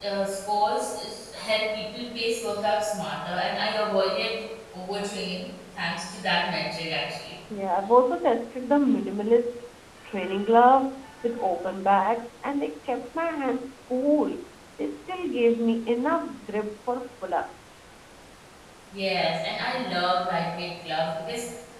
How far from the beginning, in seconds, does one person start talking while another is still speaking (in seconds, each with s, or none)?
none